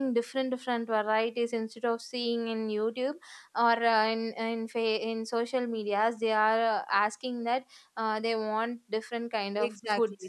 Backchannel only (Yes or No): No